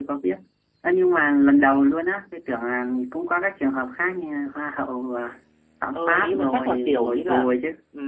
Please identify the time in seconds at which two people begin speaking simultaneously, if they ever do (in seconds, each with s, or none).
5.9 s